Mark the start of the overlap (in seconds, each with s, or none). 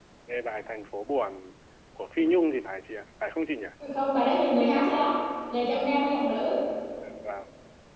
none